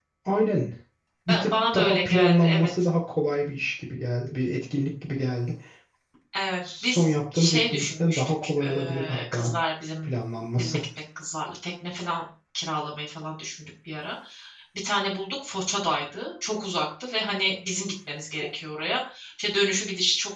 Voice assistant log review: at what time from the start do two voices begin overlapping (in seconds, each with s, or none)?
1.3 s